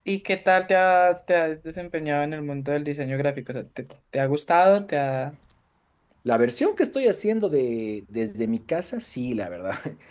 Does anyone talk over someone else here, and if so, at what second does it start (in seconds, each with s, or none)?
none